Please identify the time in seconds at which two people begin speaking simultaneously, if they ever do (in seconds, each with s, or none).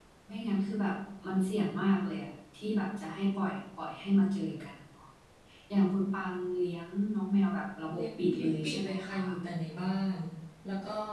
7.9 s